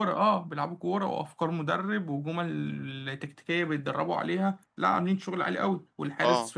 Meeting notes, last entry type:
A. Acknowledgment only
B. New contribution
A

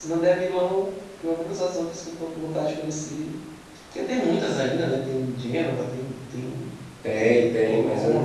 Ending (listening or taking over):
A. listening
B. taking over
B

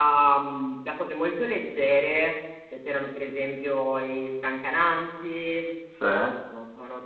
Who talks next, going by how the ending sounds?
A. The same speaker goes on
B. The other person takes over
A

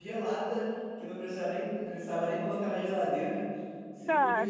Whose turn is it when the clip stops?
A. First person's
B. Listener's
B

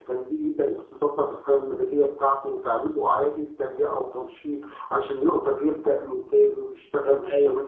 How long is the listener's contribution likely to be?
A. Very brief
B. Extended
B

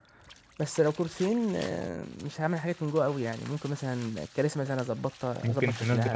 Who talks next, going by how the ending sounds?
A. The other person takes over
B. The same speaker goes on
A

